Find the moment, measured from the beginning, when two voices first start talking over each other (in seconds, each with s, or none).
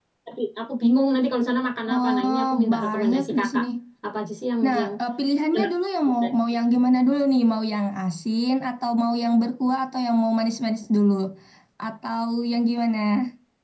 1.9 s